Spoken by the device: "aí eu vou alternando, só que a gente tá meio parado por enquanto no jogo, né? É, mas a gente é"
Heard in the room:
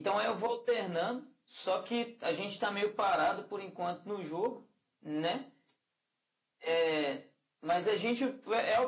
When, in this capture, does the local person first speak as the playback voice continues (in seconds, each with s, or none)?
none